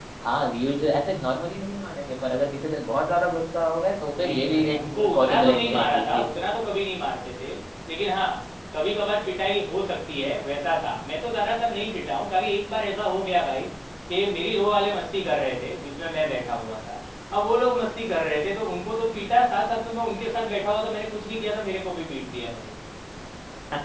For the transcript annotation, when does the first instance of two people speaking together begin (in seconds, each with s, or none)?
4.1 s